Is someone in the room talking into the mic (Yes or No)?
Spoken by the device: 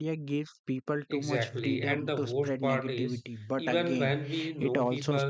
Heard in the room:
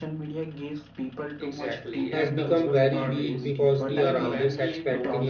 Yes